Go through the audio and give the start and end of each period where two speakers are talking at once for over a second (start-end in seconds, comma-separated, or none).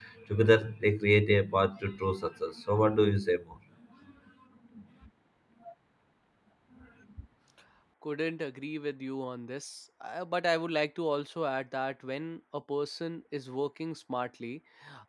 none